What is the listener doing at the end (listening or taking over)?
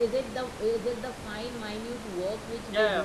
taking over